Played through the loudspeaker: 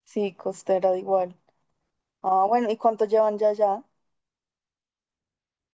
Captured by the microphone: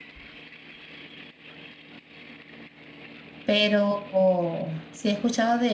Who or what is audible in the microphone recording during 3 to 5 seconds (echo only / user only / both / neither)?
user only